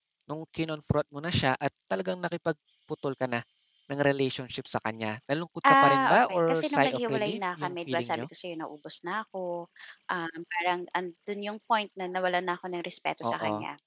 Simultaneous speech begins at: 5.8 s

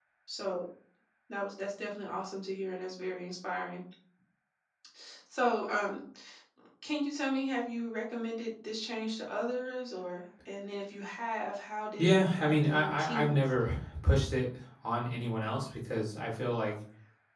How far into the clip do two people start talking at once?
12.0 s

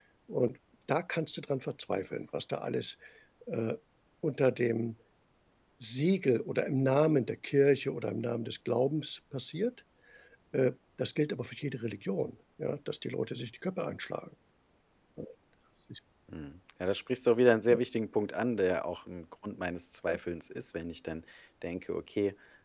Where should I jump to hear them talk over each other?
none

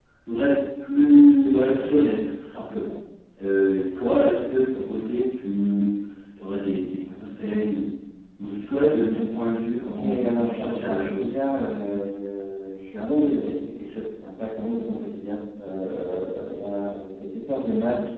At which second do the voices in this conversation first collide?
9.8 s

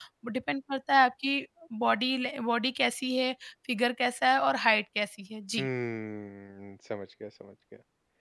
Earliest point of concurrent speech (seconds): none

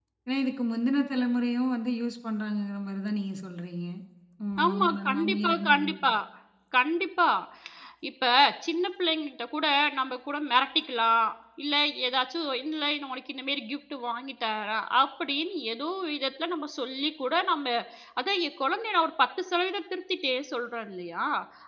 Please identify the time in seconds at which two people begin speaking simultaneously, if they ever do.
4.6 s

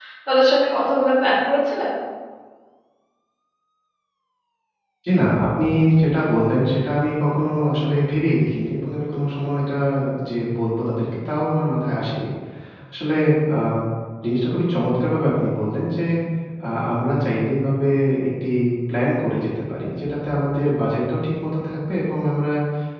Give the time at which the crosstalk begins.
none

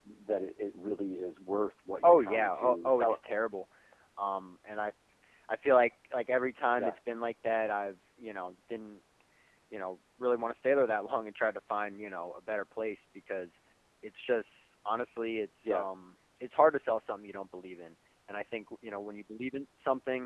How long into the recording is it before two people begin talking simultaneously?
2.0 s

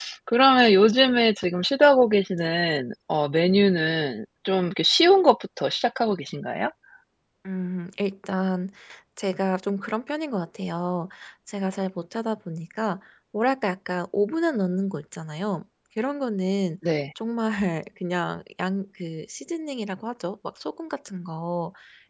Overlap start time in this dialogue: none

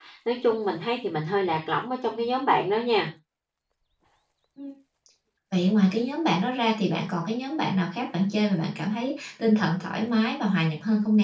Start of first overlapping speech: none

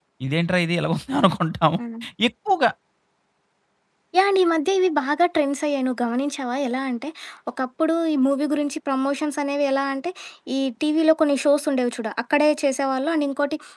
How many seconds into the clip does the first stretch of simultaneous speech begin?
none

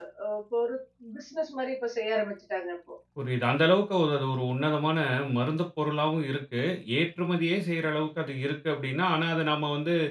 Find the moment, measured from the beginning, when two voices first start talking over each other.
none

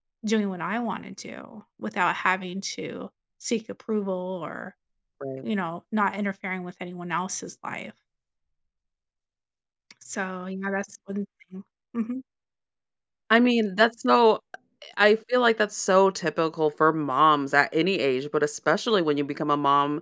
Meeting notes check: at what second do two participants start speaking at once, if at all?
none

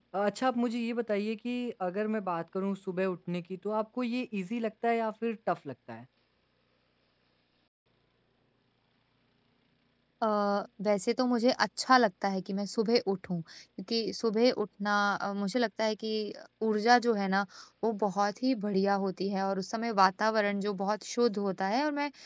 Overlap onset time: none

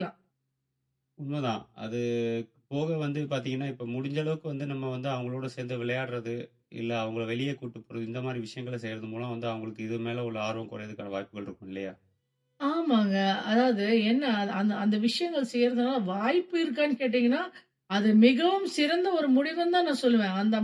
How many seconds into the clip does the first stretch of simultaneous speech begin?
none

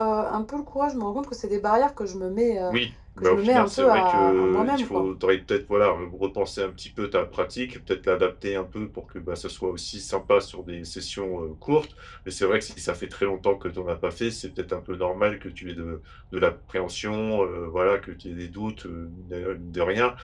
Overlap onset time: 3.2 s

